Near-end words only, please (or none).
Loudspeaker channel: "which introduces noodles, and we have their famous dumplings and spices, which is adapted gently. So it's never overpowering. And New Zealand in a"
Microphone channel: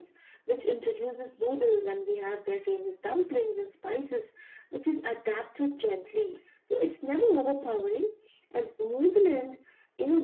none